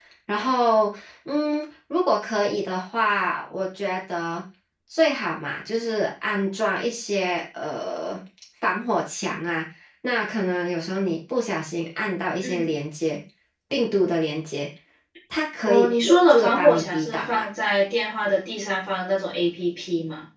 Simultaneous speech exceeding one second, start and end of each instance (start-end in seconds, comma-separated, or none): 15.6-17.4